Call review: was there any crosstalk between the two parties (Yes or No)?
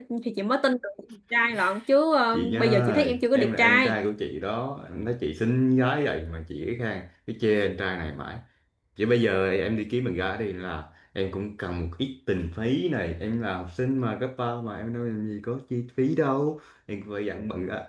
Yes